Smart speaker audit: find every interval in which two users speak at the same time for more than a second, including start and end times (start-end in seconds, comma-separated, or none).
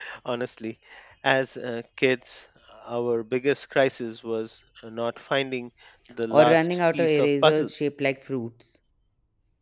6.3-7.7